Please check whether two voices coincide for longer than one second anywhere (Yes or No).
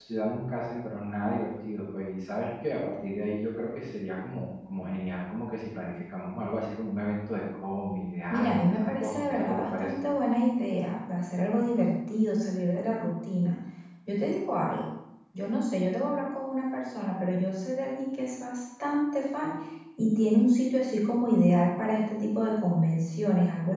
Yes